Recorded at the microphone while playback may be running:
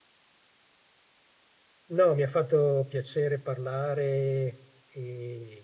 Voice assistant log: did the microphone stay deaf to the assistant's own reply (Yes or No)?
Yes